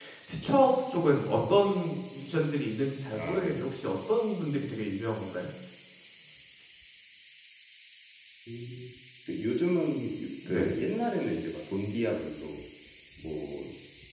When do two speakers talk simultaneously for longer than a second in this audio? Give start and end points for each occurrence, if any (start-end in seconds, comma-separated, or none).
none